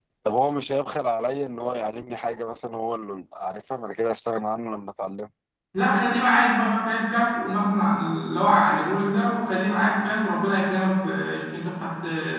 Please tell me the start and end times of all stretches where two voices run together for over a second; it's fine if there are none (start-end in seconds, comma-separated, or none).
none